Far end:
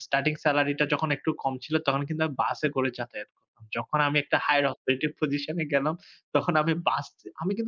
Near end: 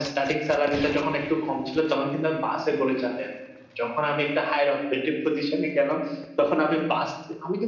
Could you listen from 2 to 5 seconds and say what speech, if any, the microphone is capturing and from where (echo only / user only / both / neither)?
echo only